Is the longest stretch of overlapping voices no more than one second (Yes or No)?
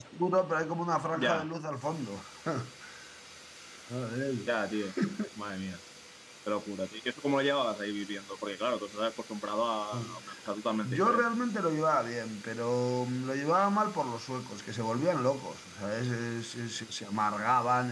Yes